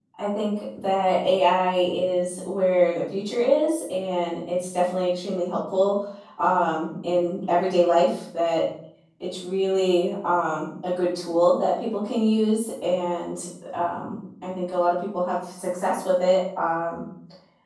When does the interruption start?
none

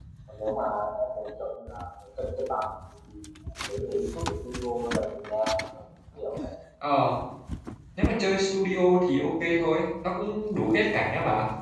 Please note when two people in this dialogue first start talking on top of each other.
none

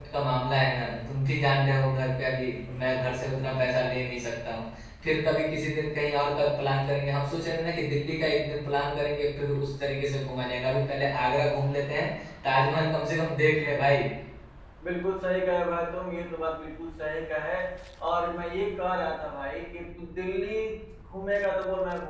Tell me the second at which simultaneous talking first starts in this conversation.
none

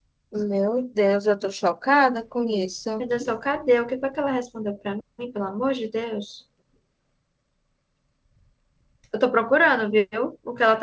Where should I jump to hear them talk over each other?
none

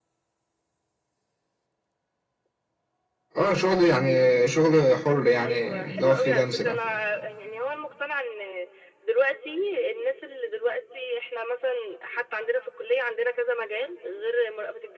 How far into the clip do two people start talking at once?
5.4 s

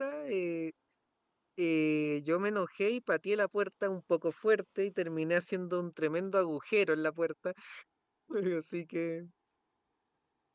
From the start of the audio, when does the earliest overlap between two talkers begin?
none

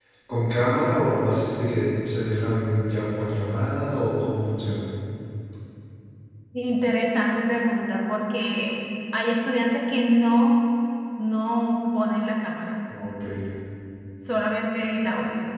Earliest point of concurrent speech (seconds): none

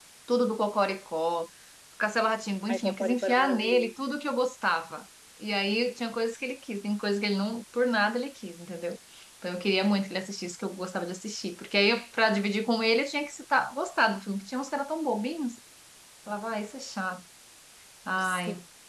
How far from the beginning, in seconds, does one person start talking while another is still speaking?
2.7 s

